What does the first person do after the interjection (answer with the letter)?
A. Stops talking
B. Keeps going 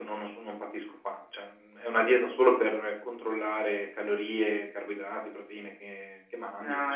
A